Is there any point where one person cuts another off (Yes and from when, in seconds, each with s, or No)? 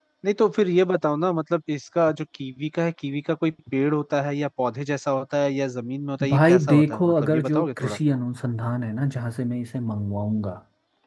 Yes, from 6.2 s